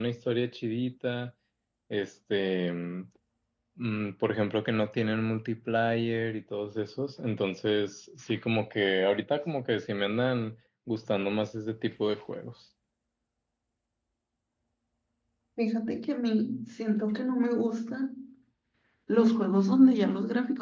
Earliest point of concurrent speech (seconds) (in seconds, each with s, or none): none